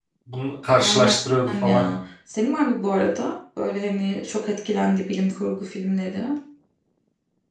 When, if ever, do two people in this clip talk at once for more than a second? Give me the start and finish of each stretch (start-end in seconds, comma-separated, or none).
none